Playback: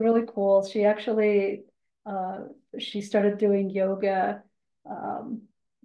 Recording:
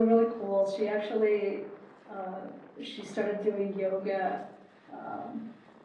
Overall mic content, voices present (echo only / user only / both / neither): echo only